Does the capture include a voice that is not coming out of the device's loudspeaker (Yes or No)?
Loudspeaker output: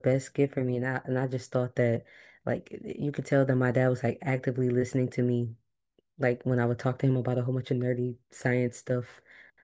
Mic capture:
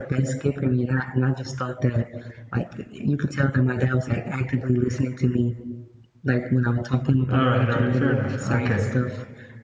Yes